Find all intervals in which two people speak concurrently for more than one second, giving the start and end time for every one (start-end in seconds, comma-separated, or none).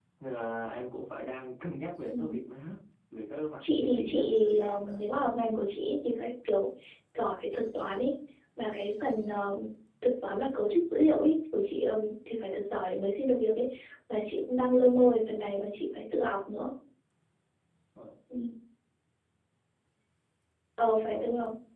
3.6-5.0